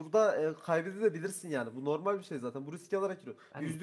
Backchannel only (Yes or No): Yes